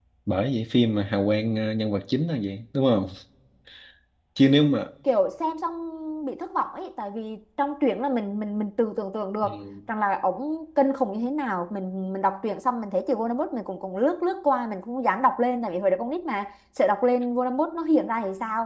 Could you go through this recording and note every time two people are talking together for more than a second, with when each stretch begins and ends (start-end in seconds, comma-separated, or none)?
none